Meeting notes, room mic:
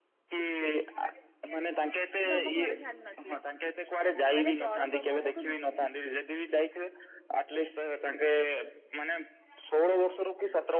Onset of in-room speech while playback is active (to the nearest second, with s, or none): 2 s